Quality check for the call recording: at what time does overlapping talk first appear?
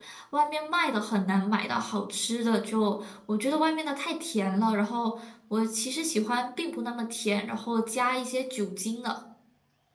none

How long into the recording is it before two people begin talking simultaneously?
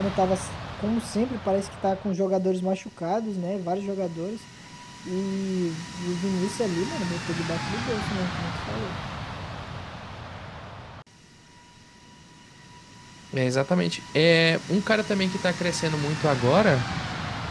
none

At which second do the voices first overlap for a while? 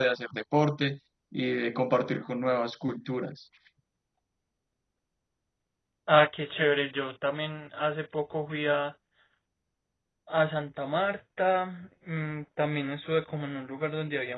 none

